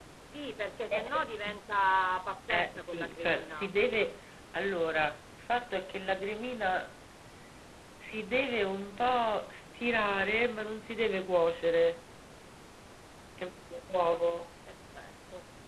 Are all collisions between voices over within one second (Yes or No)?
No